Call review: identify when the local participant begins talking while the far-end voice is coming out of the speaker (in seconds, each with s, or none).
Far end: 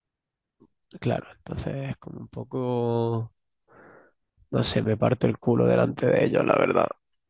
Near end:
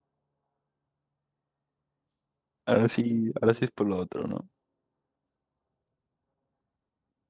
2.7 s